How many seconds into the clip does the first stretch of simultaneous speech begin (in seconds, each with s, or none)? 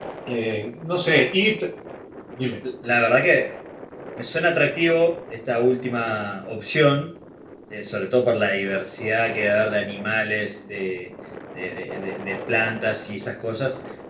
none